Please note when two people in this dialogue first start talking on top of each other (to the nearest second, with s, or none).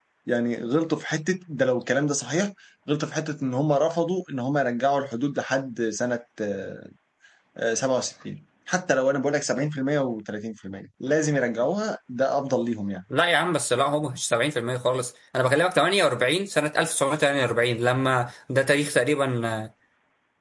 none